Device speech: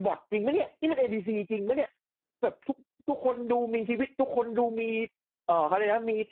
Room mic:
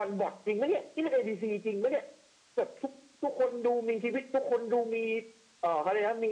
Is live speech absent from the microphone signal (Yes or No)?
Yes